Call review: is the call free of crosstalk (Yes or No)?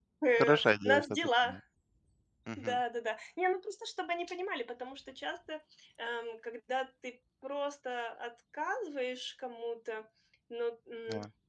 No